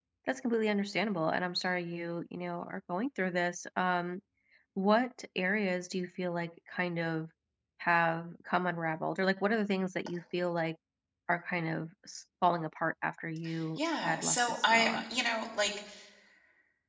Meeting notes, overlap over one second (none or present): present